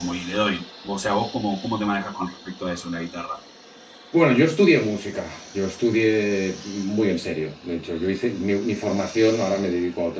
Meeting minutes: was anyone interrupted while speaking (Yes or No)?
No